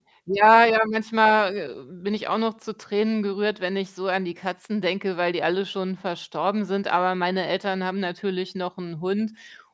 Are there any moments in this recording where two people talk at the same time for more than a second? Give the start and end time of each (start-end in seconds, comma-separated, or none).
none